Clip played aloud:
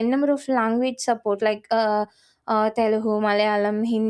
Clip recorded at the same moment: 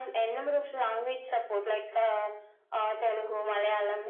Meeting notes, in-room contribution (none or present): none